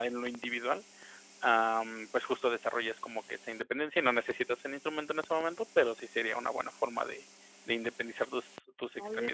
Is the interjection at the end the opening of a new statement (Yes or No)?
Yes